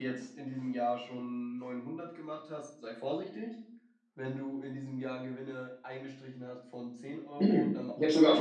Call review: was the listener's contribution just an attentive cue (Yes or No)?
No